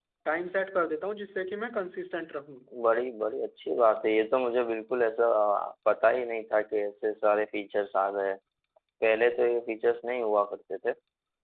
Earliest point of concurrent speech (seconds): none

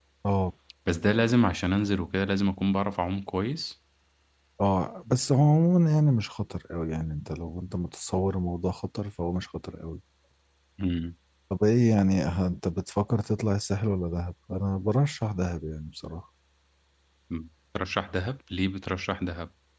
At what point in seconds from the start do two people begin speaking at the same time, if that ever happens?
none

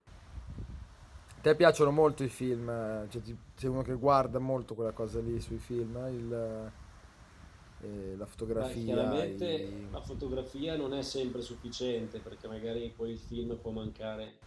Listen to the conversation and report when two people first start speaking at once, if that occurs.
8.5 s

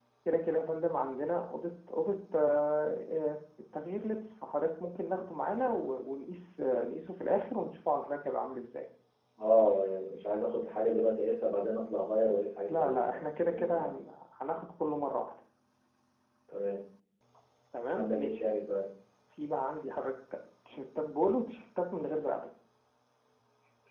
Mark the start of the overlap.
12.7 s

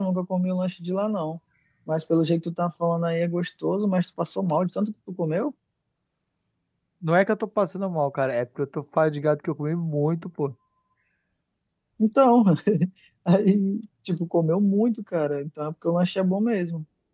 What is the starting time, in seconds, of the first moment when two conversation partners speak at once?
none

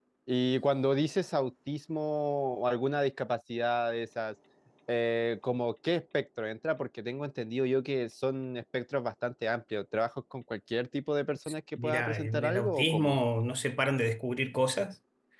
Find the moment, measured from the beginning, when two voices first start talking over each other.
11.8 s

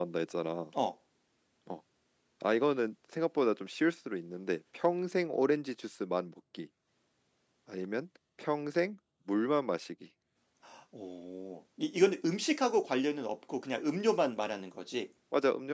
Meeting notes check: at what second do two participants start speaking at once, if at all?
none

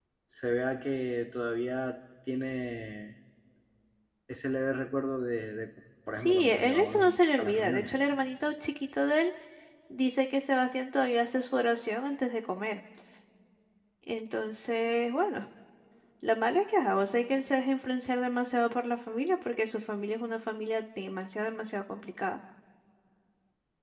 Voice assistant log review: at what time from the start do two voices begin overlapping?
6.2 s

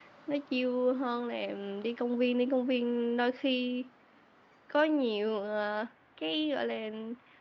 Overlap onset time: none

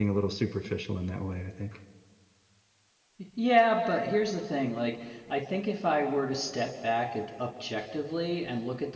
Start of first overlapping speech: none

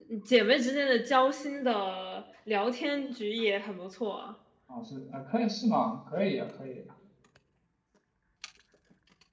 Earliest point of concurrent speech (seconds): none

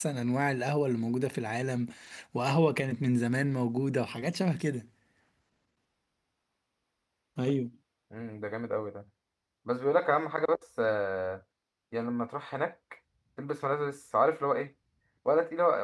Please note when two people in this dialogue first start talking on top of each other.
none

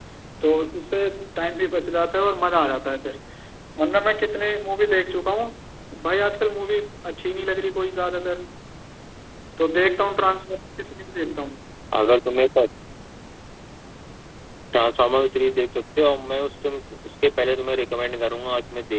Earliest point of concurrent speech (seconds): none

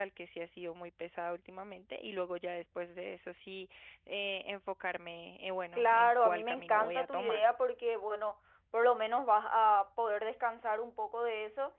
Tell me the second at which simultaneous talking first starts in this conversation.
5.8 s

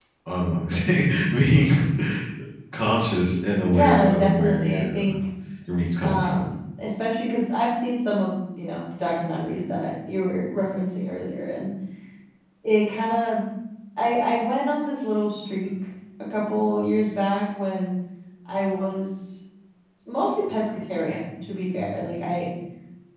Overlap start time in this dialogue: 3.7 s

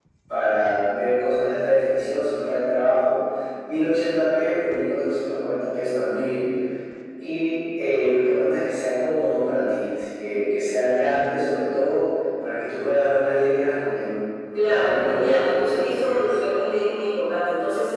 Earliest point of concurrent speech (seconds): 14.5 s

